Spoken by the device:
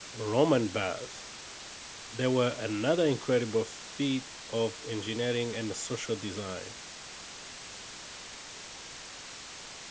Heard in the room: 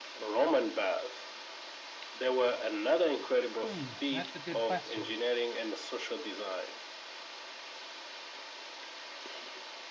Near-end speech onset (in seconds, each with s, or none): 3.6 s